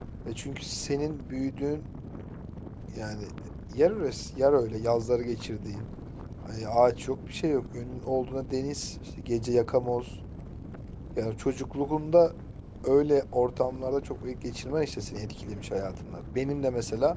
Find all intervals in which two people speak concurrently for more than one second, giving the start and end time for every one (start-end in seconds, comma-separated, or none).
none